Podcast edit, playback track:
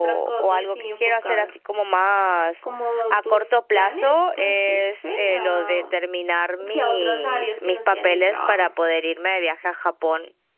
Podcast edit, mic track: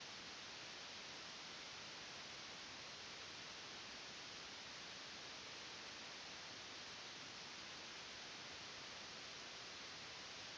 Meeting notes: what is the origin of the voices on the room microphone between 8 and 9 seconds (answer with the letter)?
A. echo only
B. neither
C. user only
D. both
B